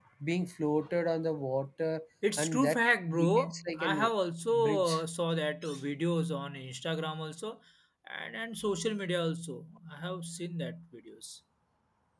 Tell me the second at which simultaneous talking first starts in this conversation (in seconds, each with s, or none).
2.4 s